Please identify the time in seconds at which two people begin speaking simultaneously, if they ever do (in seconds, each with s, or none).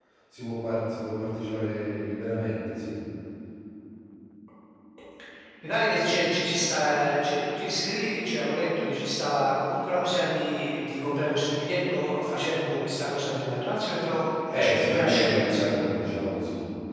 14.5 s